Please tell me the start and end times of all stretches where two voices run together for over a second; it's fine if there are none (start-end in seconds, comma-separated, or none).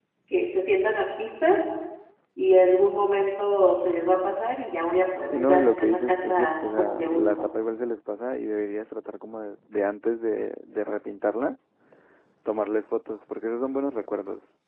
5.3-7.5